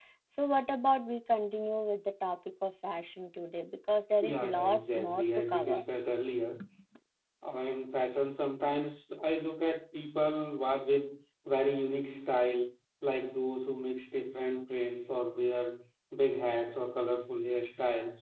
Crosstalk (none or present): present